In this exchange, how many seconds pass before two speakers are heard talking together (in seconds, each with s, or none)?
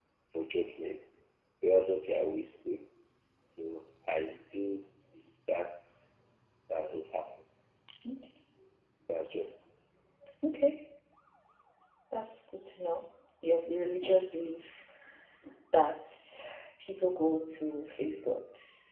none